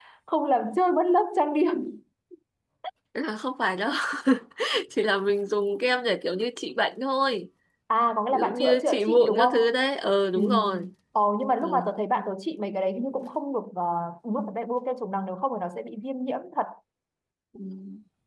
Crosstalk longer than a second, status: present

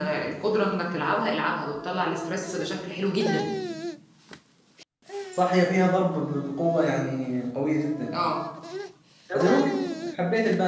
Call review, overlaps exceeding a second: none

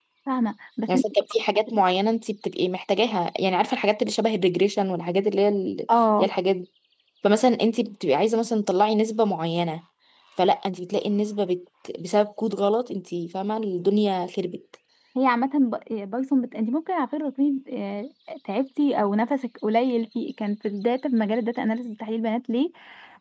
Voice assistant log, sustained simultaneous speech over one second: none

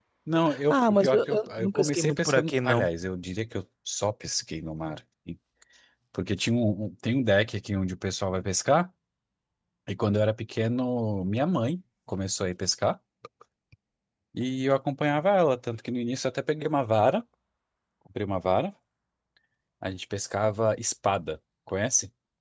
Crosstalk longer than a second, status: present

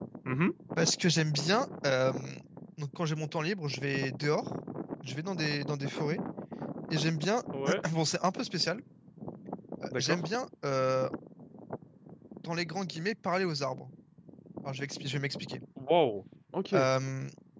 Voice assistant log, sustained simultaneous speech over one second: none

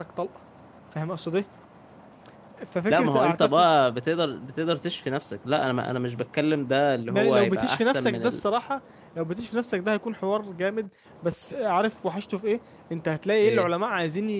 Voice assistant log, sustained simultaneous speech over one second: present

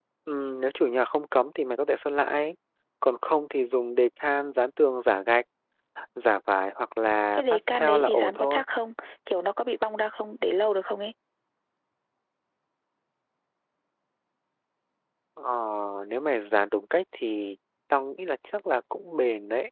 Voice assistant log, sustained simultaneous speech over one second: present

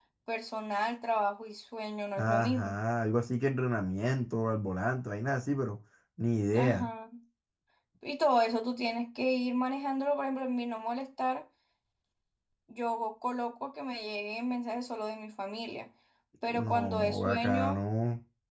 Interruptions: present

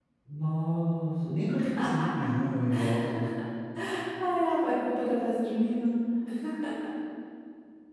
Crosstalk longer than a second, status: none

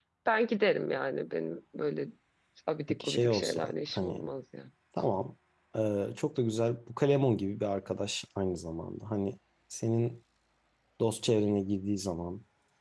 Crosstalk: present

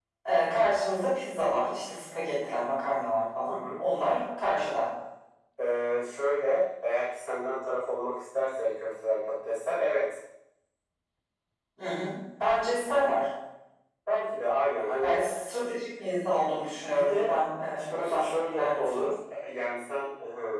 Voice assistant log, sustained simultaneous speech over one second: present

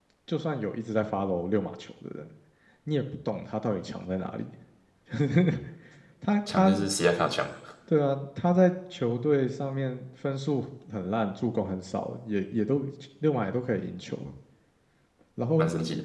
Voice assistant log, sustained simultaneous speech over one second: none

